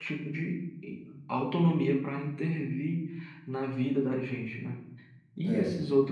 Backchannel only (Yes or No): Yes